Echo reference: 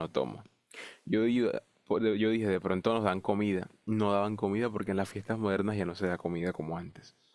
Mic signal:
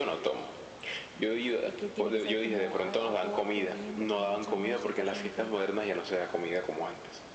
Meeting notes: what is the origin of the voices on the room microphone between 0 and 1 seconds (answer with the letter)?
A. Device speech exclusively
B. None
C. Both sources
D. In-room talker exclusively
A